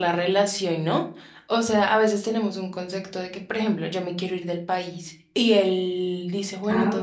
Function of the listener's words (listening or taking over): listening